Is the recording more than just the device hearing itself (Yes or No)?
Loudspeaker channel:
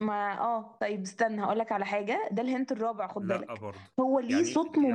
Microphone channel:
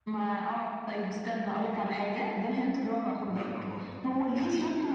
No